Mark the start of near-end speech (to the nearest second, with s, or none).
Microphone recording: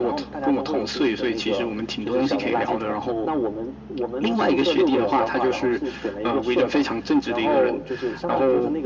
none